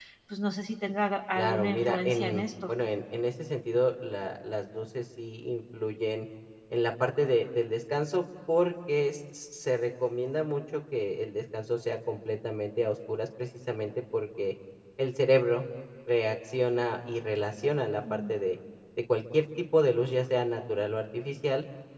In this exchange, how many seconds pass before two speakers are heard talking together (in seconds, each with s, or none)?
1.4 s